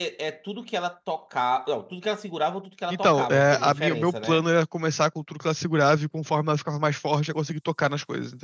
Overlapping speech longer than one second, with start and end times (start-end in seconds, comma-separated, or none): 2.9-4.4